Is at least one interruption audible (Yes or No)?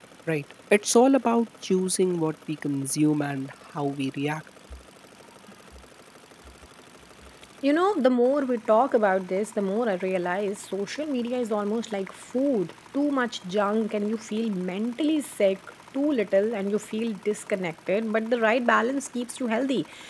No